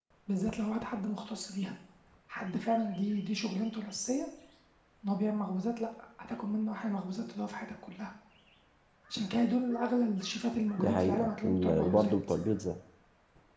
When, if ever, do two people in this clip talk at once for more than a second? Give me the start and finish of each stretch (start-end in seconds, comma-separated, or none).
10.8-12.1